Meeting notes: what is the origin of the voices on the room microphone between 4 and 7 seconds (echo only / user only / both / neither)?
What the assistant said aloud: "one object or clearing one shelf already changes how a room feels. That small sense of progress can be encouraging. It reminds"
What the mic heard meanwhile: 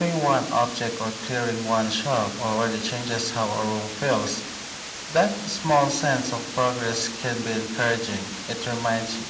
echo only